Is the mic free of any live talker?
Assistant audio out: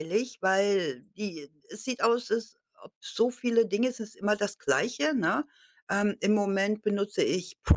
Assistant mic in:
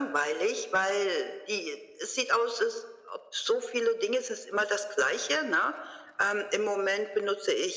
Yes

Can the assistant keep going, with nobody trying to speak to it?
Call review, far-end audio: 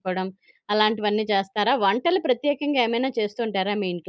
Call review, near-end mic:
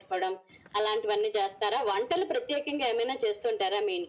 Yes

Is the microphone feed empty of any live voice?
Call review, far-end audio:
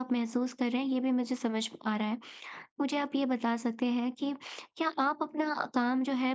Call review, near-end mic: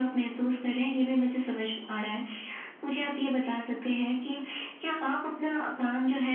Yes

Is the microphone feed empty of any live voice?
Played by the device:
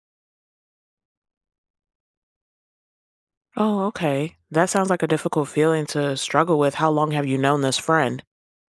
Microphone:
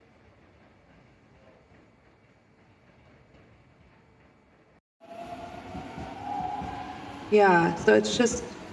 No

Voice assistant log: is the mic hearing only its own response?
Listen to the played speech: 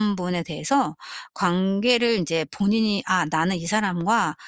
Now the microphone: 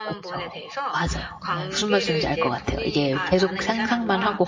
No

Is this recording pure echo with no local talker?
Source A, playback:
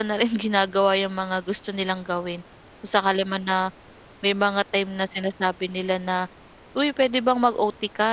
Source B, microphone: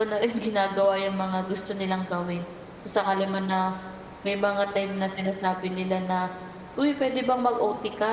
Yes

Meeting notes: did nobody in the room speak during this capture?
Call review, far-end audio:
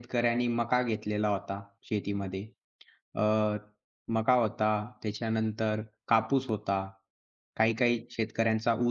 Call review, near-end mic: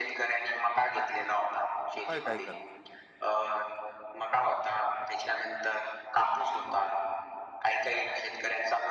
No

